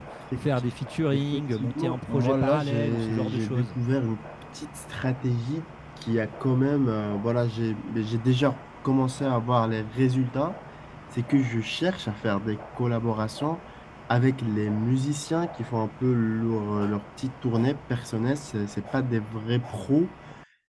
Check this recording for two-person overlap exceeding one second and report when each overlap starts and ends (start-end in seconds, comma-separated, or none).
1.1-3.8